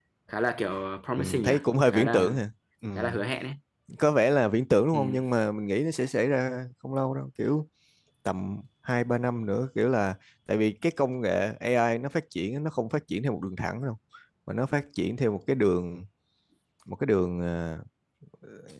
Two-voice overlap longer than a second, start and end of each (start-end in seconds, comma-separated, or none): 1.2-2.4